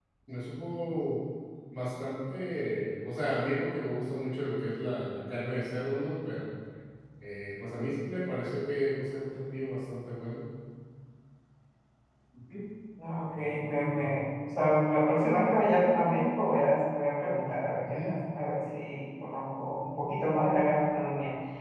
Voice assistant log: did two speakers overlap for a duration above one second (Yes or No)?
No